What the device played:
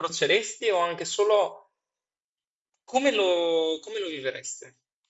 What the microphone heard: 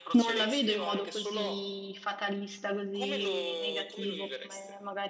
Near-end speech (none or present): present